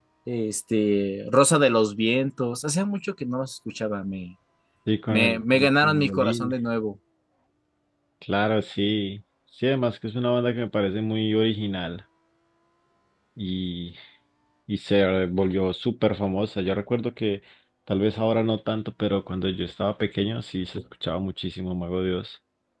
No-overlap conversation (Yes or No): No